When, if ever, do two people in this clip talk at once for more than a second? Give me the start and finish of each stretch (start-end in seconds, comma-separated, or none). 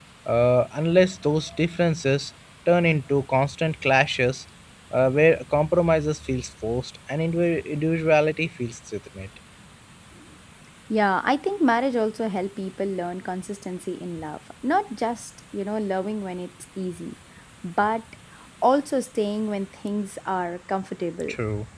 none